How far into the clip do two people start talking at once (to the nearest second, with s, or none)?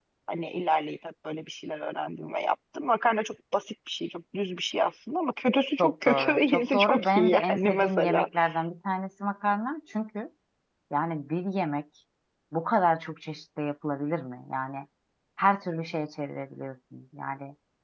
6 s